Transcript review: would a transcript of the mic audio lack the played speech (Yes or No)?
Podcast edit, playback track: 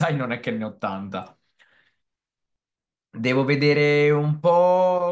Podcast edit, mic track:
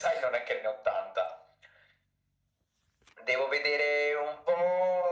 No